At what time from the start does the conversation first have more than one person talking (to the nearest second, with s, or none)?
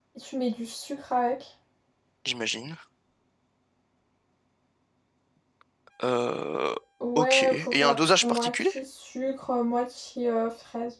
7 s